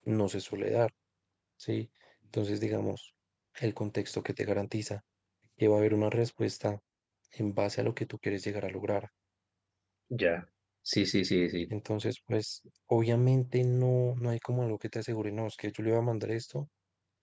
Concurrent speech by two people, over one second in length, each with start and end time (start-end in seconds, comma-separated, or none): none